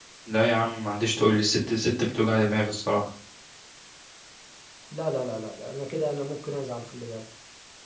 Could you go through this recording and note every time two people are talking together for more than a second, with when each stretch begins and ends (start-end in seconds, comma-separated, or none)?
none